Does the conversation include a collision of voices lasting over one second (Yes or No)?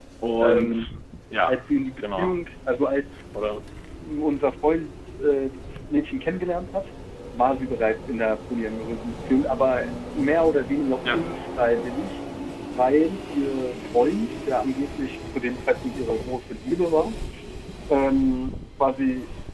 No